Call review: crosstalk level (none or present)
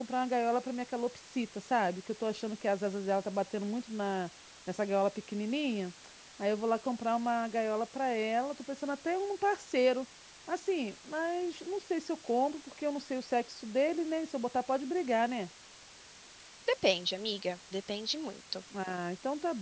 none